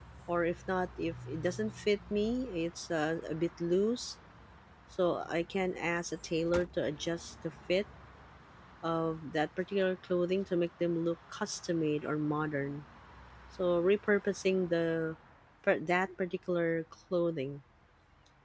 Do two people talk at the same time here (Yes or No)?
No